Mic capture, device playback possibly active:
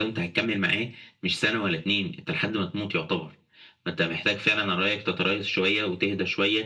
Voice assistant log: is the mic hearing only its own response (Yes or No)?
Yes